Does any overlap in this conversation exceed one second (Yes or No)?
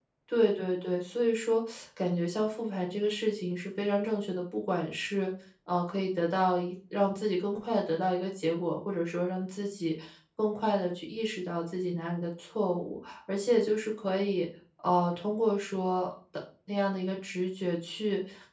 No